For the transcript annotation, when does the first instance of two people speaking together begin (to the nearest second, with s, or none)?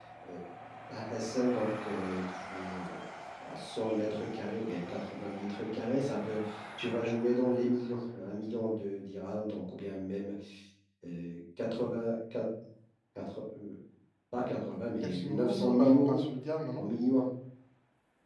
15 s